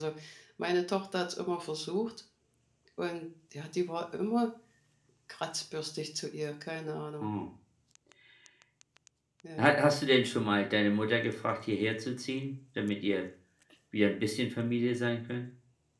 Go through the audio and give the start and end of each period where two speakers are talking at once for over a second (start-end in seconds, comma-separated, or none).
none